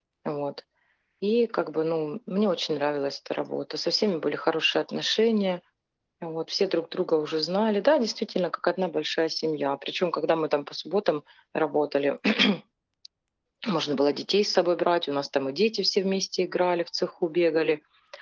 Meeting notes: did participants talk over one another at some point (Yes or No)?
No